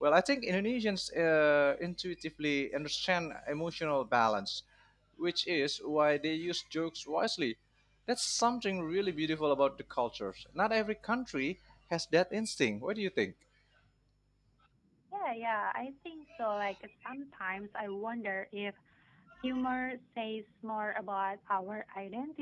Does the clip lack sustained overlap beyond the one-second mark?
Yes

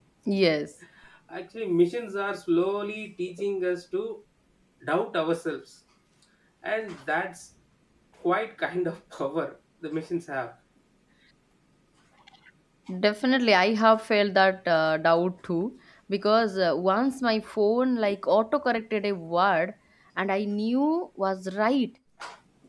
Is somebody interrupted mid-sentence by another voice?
No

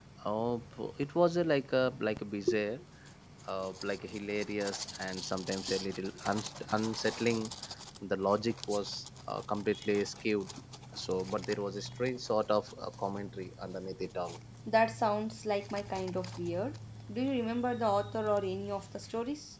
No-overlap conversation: Yes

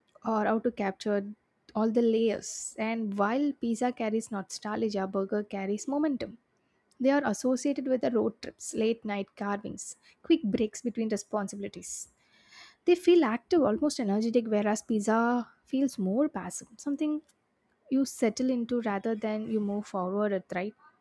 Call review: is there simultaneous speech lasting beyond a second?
No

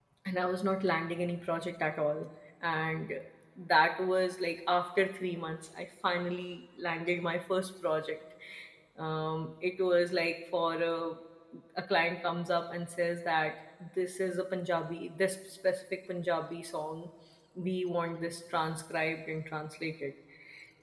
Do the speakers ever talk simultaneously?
No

